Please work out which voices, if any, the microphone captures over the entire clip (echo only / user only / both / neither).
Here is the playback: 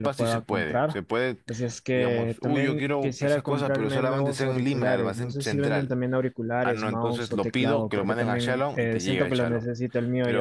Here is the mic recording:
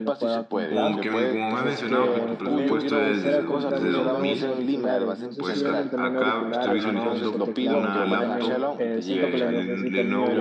both